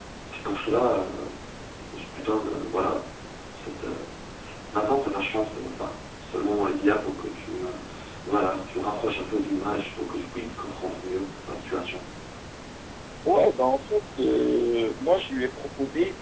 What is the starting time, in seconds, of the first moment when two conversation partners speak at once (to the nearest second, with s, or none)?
none